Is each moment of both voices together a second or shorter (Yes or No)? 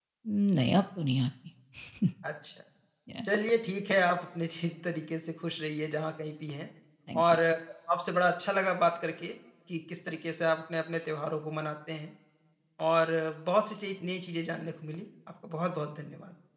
Yes